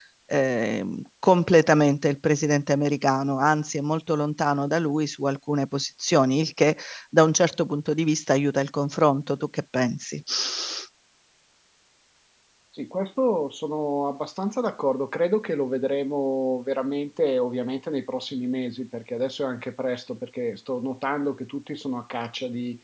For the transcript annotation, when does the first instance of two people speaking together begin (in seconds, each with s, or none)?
none